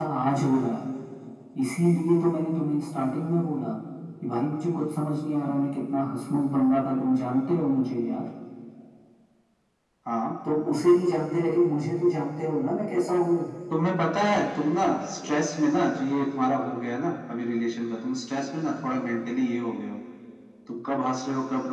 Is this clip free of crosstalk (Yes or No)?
Yes